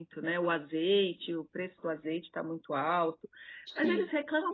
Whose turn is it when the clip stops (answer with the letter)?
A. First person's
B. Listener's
A